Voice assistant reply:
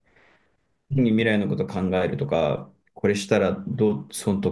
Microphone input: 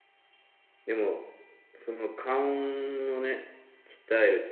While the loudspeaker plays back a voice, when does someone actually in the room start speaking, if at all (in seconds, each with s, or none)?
0.8 s